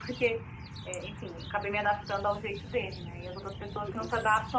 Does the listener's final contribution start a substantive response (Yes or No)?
No